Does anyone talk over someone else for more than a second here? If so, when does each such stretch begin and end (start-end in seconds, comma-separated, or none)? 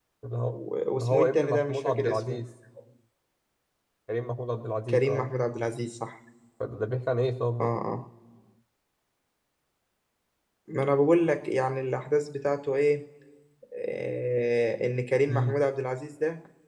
1.0-2.4